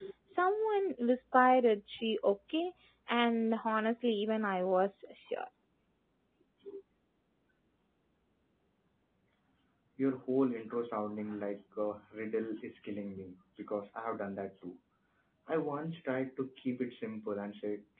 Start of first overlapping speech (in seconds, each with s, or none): none